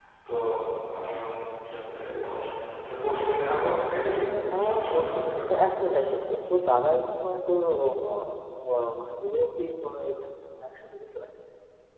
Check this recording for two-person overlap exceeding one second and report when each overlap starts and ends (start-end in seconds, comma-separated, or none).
4.5-6.0